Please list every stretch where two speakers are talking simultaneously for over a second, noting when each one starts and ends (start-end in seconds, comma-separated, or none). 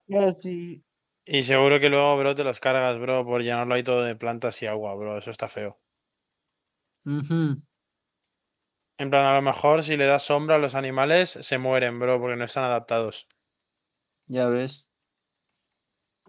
none